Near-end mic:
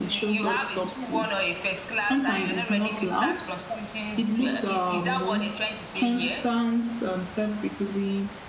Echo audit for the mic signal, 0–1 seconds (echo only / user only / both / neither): both